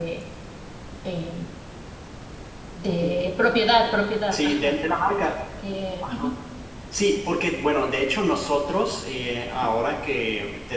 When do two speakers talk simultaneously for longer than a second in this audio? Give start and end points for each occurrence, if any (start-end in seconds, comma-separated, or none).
none